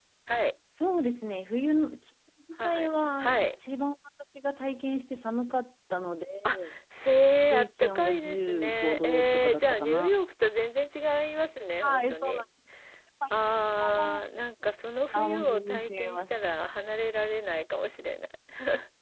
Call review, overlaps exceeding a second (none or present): present